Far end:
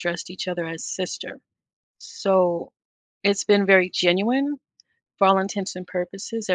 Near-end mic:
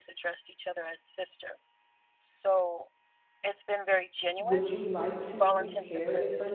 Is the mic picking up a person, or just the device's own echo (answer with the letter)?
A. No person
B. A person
B